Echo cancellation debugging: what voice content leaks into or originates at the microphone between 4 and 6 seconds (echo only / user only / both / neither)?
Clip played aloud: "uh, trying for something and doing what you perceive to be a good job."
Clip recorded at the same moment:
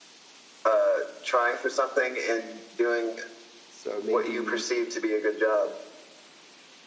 both